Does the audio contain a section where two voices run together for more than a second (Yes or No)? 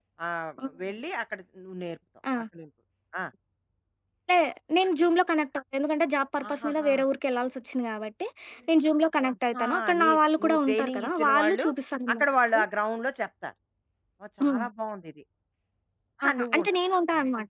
Yes